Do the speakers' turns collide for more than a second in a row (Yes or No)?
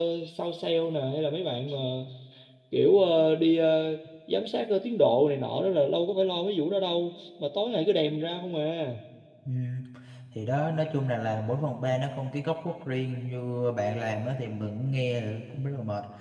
No